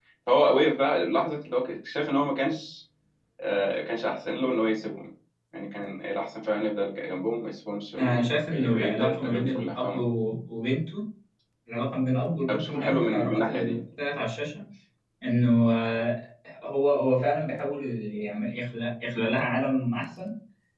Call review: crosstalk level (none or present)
present